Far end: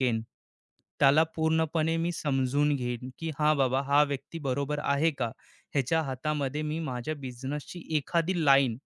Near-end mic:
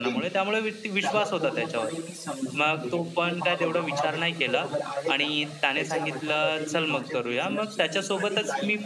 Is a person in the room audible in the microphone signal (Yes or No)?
Yes